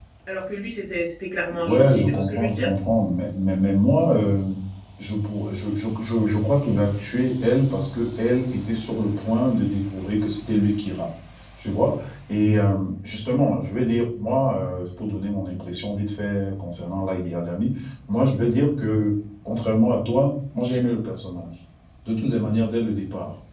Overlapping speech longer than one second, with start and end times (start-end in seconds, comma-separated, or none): 1.5-2.7